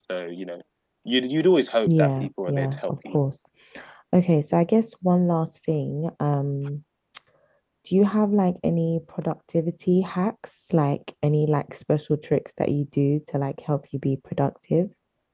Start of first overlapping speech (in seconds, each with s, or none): 1.9 s